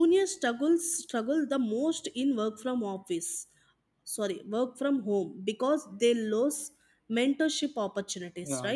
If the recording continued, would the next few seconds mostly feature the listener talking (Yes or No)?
Yes